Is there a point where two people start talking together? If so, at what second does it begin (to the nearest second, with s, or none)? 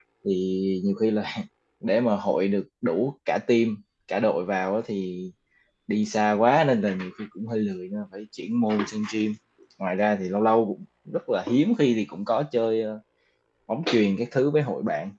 none